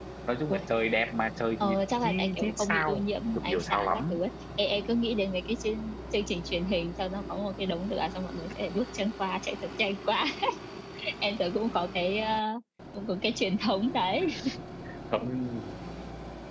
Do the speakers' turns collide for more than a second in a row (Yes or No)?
Yes